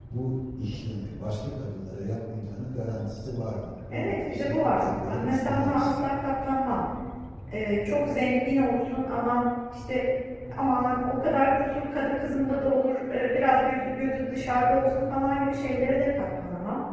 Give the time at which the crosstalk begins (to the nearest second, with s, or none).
4 s